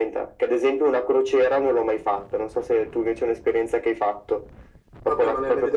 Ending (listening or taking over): taking over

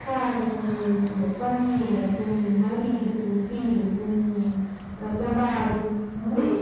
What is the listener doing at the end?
taking over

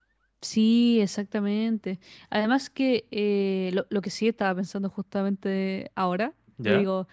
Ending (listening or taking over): listening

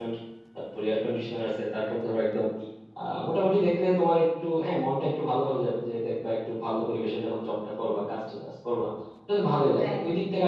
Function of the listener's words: listening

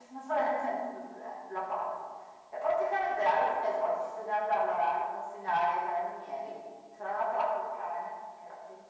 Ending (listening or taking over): listening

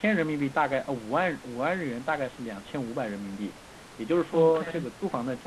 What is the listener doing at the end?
listening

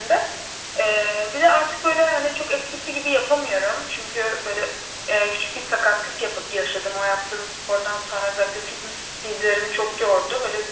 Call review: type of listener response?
listening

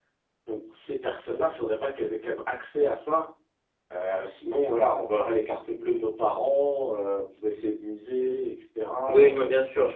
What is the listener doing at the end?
taking over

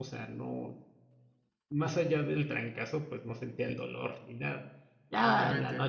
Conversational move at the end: taking over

